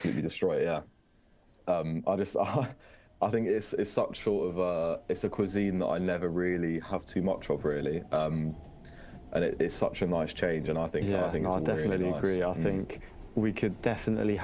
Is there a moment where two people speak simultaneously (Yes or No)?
Yes